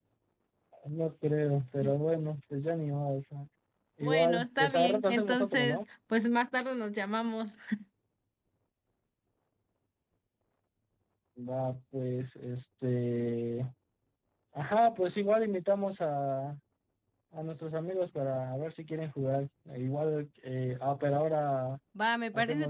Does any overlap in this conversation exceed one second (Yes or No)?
Yes